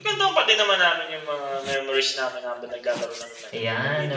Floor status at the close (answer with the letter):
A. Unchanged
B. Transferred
B